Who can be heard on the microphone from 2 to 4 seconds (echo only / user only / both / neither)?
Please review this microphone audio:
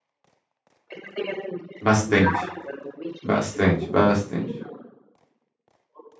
both